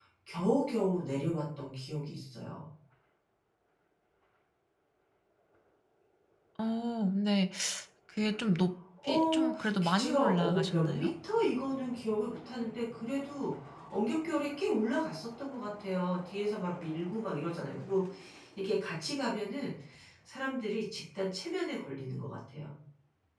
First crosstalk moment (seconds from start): 9 s

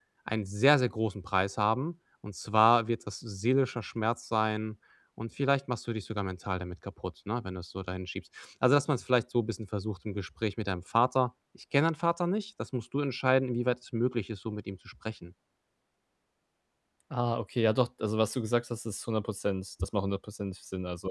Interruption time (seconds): none

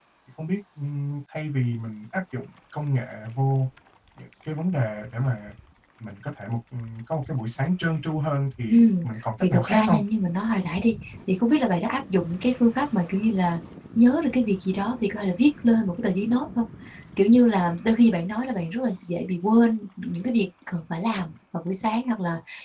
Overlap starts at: 9 s

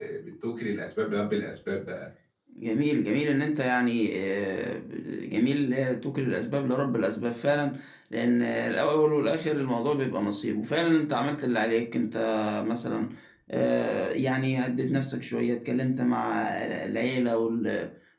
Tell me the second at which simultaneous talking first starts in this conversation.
none

